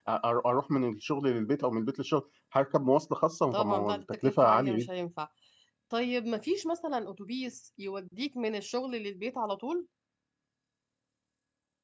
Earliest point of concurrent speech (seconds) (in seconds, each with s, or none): 3.5 s